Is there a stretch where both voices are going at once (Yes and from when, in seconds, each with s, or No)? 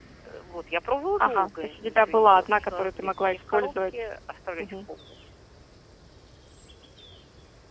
Yes, from 1.2 s